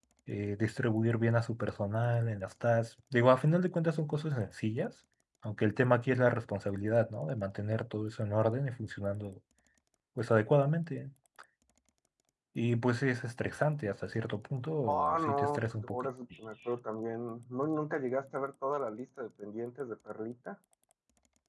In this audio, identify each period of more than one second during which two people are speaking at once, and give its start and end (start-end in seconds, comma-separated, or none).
14.8-16.1